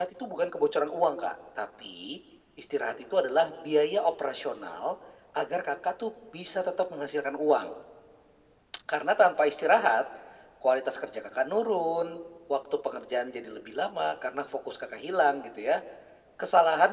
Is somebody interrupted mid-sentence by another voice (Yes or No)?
No